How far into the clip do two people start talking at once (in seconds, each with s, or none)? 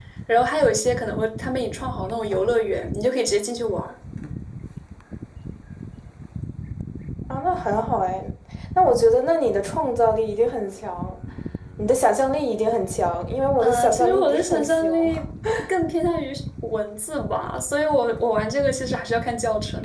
13.6 s